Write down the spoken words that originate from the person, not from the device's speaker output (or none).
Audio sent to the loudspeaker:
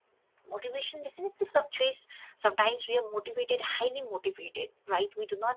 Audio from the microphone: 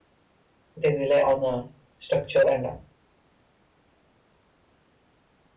They rely on uh, structure and uh,